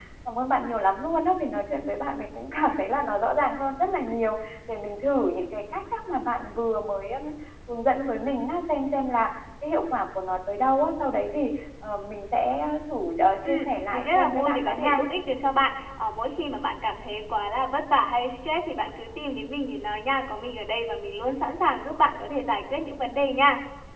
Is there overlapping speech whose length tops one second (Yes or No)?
Yes